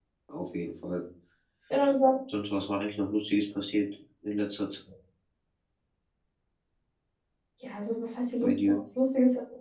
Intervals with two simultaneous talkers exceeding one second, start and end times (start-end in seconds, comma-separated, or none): none